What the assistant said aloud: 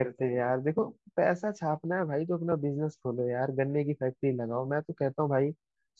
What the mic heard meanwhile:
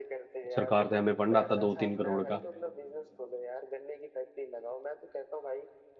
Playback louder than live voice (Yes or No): No